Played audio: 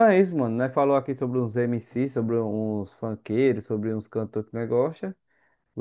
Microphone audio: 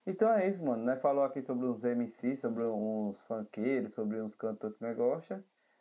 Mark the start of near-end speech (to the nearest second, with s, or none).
none